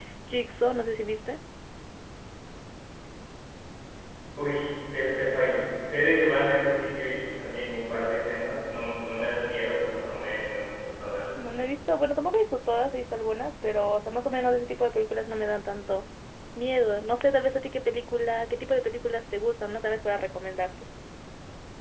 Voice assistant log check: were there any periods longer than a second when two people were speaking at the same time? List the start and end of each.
none

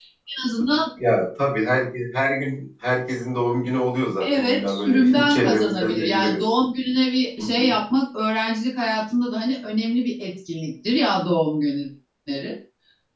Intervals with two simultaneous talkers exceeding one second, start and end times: 4.2-6.4

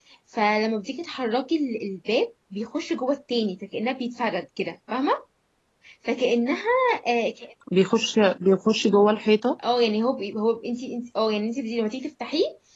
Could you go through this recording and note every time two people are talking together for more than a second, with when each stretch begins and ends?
none

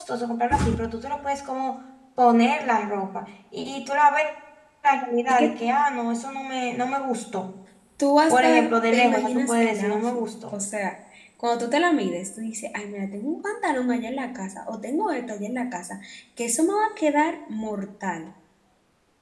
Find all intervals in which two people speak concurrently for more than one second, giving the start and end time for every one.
8.3-10.6

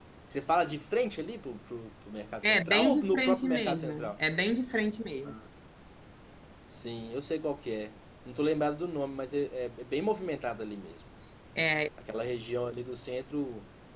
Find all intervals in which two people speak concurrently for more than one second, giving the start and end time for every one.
2.4-4.1

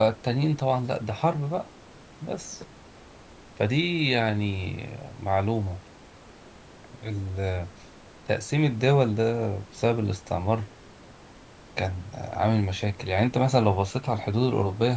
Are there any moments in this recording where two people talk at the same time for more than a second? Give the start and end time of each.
none

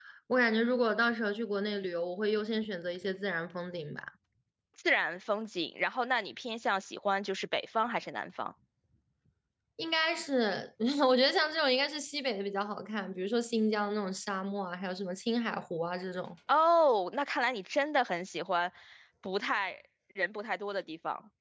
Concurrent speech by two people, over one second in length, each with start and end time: none

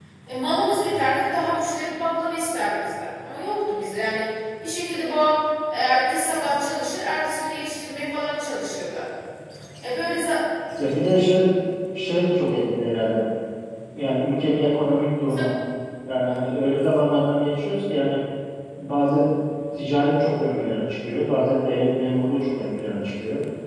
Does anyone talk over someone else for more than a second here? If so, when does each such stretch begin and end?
none

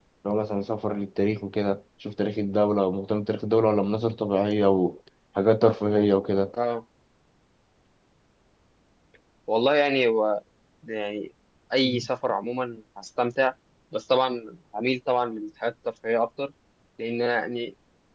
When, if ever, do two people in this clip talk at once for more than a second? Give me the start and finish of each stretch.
none

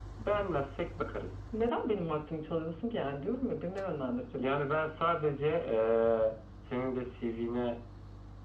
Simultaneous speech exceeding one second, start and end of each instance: none

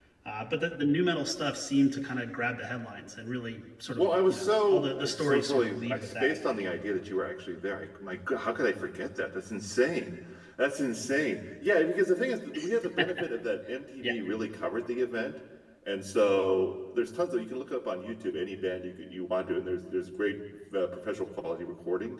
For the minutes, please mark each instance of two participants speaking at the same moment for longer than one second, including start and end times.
4.0-6.6

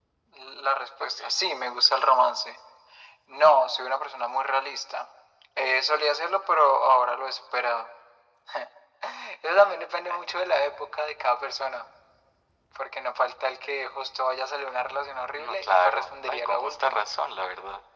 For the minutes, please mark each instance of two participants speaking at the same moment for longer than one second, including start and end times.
15.4-17.0

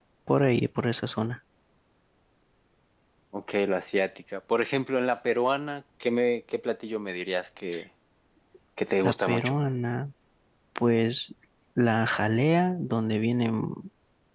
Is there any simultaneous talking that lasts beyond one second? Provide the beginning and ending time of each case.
none

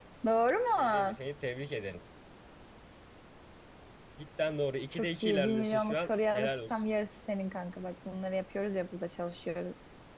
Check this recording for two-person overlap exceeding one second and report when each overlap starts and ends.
4.9-6.8

